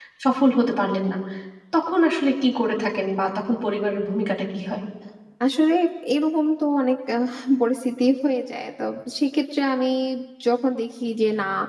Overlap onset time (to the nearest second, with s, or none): none